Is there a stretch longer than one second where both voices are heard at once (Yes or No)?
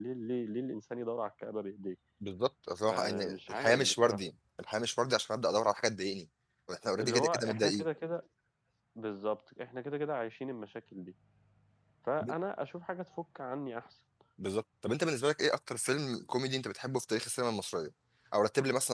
Yes